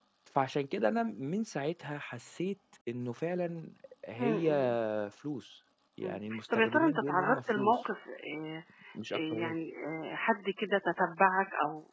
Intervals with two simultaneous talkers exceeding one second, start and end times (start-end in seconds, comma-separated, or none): 6.0-7.7